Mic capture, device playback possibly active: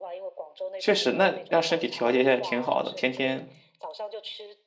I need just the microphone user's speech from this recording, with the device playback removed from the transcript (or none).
确实，那让身体调节一下也挺好的。天天